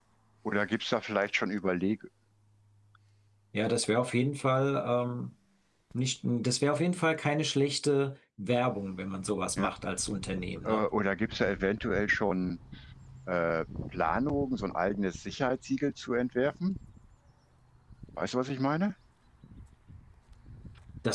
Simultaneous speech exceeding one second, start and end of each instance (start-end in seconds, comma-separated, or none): none